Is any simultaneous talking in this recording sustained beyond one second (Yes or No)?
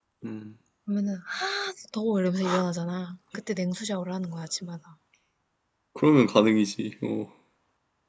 No